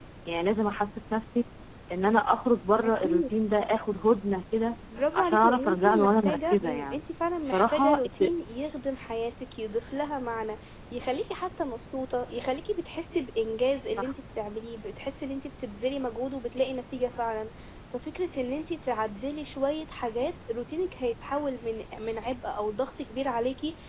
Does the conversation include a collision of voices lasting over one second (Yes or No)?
Yes